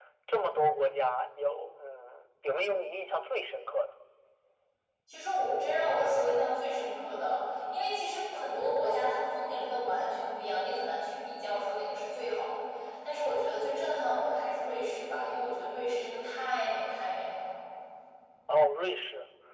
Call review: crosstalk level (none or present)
none